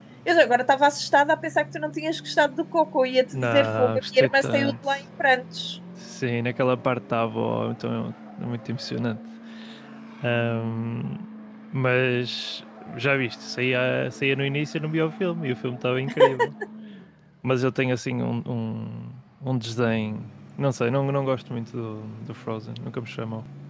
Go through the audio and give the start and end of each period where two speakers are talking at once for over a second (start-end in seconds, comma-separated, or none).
3.4-4.7